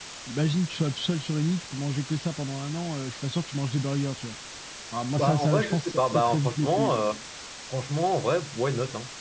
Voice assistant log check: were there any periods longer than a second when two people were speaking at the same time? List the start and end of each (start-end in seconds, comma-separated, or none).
5.2-7.0